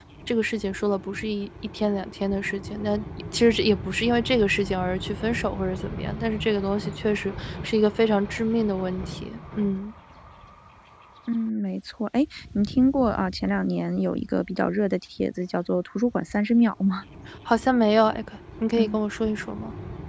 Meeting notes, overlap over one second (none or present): none